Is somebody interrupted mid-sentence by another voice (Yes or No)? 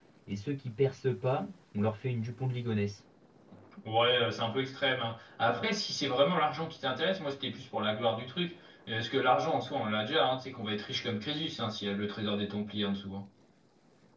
No